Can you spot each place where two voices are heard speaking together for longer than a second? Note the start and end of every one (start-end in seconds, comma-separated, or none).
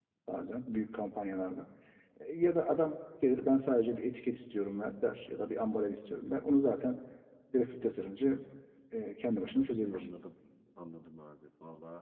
none